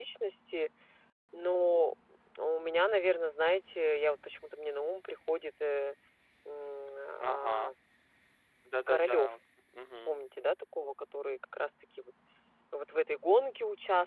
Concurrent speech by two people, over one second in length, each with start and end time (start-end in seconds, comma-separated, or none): none